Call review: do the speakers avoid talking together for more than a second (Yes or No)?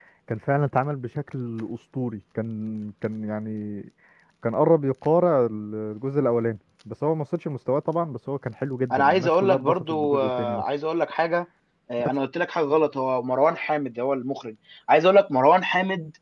No